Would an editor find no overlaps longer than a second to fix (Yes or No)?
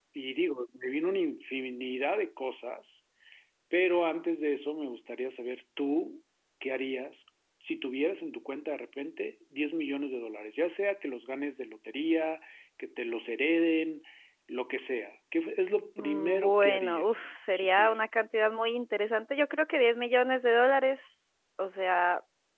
No